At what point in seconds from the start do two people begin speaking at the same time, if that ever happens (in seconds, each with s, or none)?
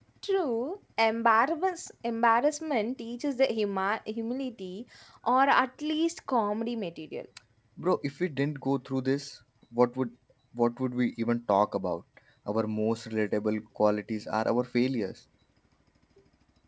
none